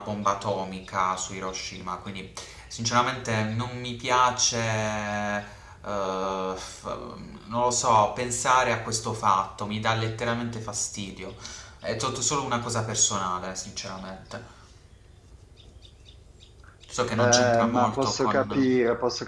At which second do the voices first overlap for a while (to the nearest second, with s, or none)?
17 s